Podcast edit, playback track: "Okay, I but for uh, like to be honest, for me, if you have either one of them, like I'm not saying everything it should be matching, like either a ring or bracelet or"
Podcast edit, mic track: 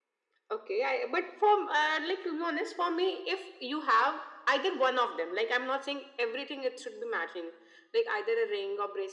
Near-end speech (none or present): none